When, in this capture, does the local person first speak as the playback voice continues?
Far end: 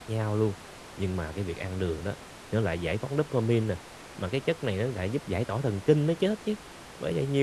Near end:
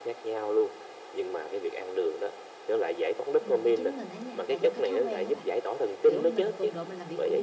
3.4 s

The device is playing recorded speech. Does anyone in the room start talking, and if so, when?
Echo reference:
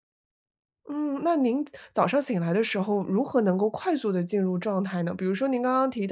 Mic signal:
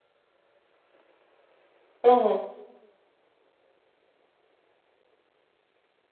2.0 s

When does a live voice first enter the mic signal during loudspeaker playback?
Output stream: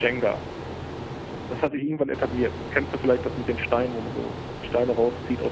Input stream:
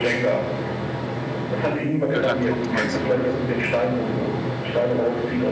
2.1 s

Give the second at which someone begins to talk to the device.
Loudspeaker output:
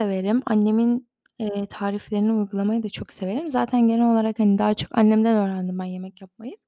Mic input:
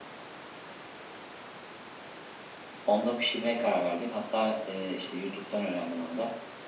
2.9 s

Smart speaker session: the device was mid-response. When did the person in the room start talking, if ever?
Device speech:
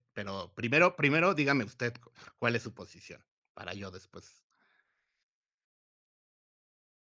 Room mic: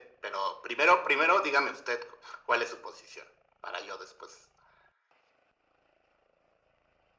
none

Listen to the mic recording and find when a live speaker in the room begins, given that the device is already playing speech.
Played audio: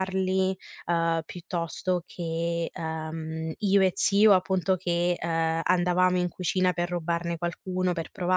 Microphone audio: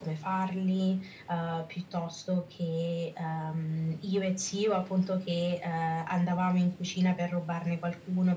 none

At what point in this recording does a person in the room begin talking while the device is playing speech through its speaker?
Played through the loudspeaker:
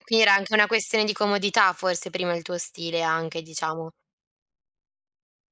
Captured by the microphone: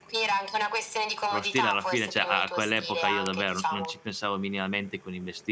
1.3 s

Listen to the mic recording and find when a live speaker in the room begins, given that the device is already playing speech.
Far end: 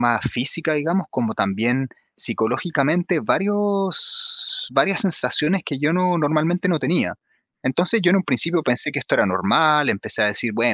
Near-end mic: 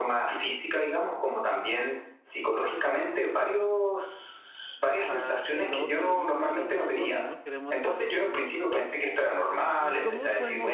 4.9 s

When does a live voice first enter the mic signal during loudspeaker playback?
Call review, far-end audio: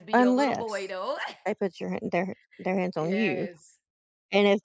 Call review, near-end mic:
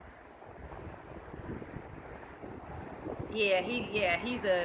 3.3 s

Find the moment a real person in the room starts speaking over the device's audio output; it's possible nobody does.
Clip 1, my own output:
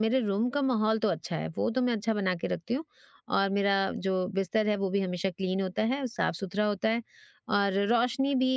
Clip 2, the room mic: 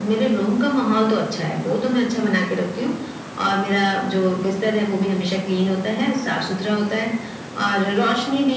none

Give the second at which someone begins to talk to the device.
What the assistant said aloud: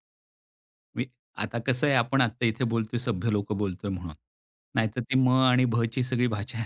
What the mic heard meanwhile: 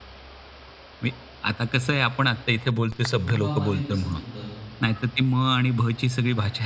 3.1 s

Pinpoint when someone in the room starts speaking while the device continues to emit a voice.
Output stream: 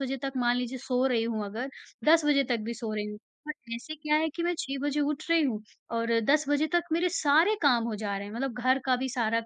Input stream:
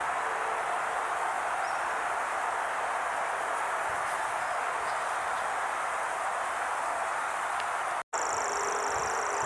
none

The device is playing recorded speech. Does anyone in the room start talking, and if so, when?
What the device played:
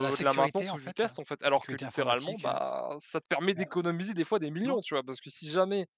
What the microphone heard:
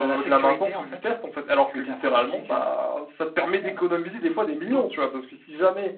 none

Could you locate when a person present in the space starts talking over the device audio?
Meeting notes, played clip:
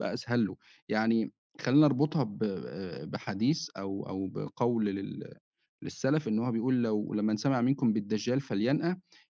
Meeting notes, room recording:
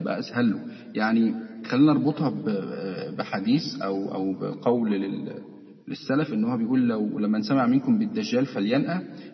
none

